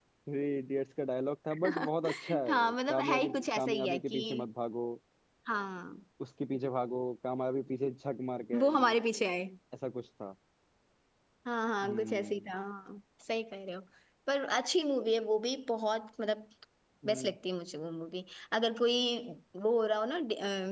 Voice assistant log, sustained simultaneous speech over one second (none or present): present